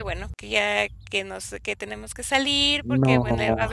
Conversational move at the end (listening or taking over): listening